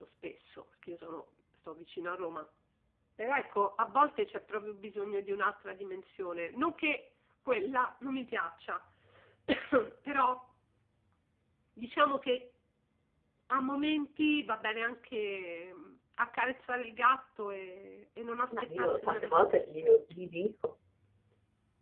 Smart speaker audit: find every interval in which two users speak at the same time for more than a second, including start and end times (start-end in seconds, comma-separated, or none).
18.5-19.7